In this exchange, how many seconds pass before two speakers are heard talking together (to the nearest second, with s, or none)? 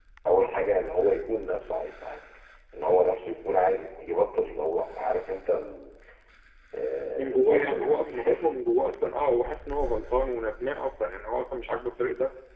7 s